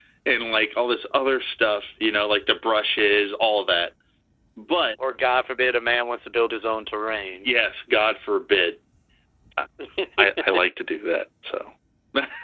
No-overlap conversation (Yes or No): Yes